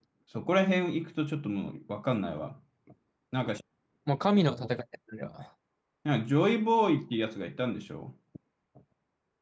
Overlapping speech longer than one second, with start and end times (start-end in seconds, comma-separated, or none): none